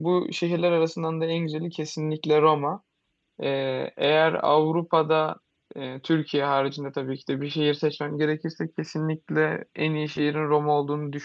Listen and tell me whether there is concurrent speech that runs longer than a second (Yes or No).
No